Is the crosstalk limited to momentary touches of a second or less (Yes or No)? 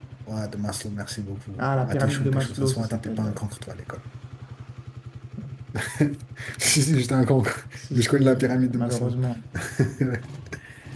No